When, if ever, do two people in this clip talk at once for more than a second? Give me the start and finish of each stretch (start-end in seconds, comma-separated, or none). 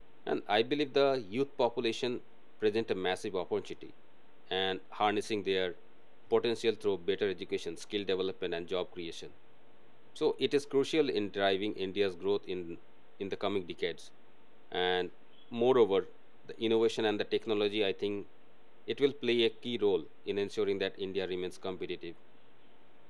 none